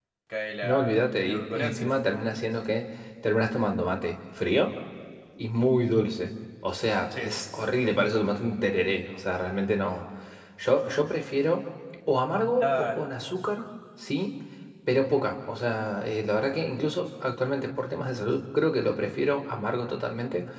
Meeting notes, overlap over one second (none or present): present